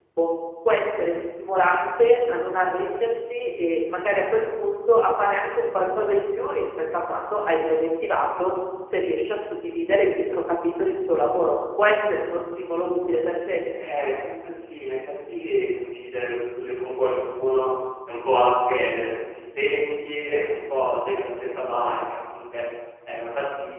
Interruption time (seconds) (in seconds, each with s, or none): none